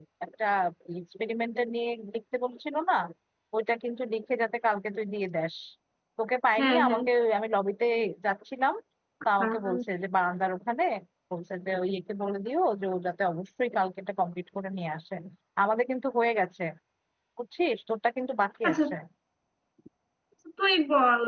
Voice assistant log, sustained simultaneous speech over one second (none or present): none